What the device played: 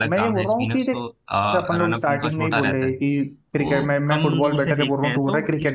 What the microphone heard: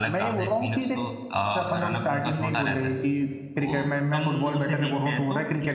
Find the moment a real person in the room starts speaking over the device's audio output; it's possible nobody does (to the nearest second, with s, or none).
none